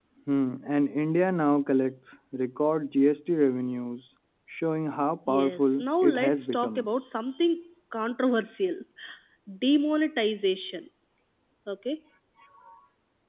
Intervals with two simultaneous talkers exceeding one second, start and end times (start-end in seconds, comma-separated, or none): 5.3-6.9